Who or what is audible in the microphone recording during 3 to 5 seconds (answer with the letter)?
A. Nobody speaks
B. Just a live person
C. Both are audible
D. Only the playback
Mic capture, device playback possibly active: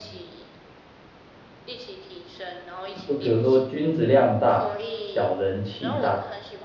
C